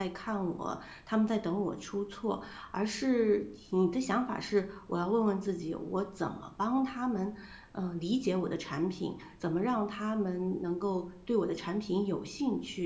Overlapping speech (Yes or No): No